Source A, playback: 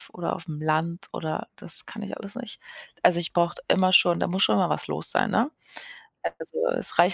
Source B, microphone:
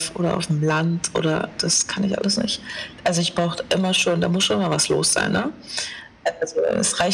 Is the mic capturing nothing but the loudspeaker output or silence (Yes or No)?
Yes